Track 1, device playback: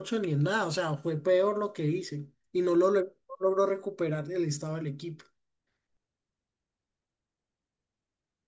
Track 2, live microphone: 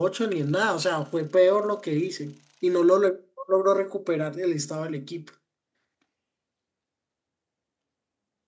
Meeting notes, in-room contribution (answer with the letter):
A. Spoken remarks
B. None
B